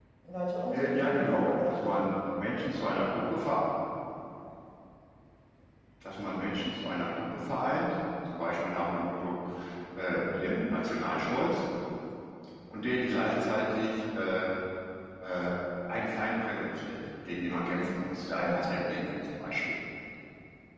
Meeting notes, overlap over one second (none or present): present